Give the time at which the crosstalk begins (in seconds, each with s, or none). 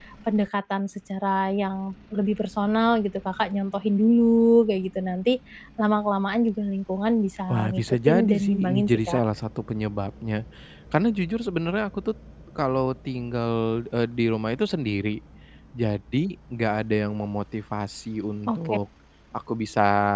7.5 s